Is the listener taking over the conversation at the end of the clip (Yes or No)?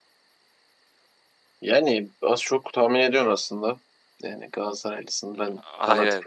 No